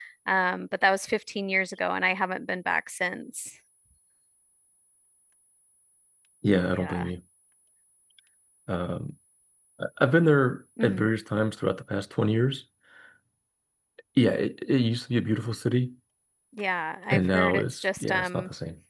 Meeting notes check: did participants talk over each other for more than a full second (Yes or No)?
Yes